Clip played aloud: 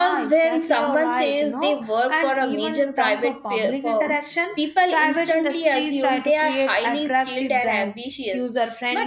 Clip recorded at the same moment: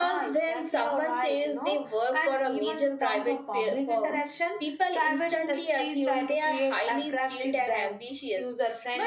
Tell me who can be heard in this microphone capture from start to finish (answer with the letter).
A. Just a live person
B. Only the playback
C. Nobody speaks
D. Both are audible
B